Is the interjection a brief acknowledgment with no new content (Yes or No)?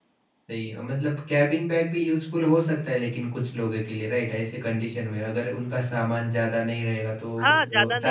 No